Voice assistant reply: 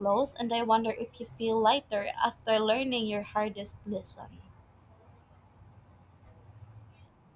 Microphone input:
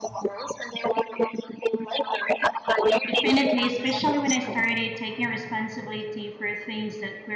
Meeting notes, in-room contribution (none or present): present